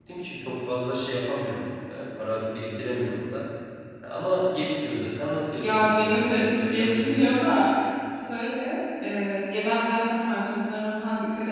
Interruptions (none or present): present